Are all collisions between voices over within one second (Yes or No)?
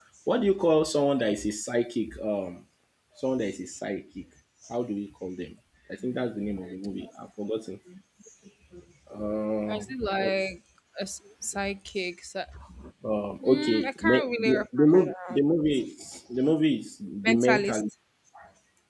No